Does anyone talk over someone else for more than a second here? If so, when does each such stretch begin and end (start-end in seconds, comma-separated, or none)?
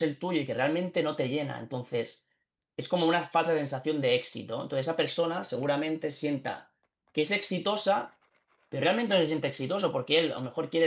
none